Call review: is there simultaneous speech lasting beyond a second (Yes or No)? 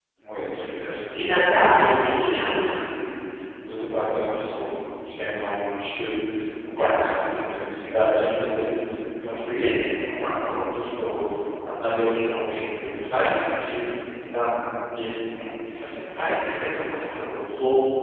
Yes